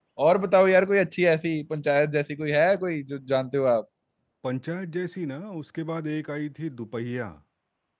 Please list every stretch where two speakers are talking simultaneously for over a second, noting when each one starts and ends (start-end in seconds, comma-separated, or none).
none